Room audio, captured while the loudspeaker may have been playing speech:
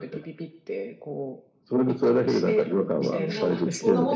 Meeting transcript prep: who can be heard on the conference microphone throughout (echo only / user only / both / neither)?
both